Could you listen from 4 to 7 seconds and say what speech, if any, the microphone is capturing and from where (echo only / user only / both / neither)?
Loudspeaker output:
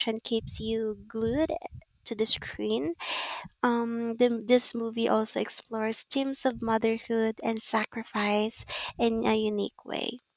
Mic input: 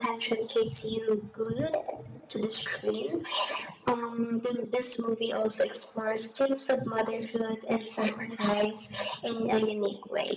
echo only